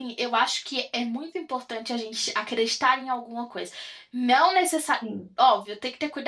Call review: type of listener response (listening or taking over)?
listening